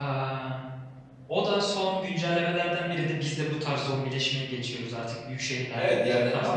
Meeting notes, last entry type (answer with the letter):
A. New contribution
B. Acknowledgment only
A